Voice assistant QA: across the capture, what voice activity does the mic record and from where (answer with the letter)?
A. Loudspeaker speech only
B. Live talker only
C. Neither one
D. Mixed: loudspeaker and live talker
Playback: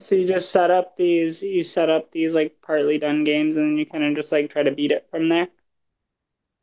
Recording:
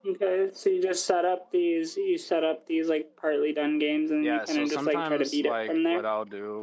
D